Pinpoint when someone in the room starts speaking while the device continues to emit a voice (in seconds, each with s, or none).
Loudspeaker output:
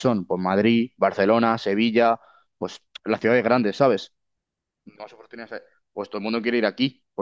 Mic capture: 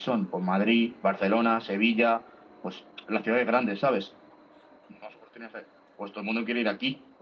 none